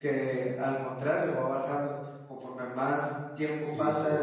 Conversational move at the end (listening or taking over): taking over